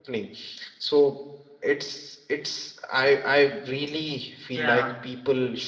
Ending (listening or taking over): listening